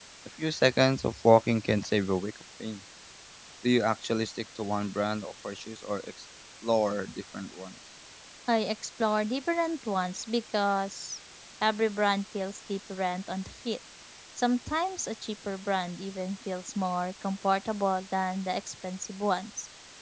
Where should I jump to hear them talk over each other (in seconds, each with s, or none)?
none